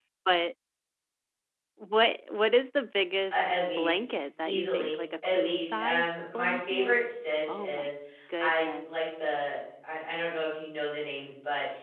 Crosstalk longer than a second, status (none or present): present